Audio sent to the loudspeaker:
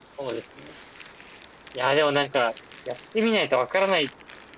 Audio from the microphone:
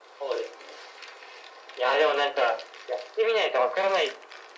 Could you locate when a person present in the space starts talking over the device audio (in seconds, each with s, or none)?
none